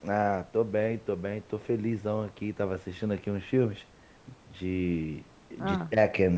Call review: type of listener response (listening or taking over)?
listening